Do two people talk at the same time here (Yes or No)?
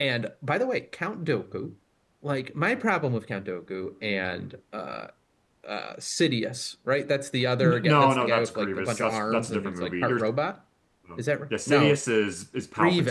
Yes